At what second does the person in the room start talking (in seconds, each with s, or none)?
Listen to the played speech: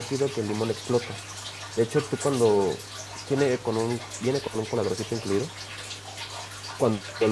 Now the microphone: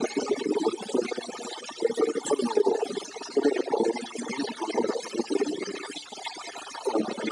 none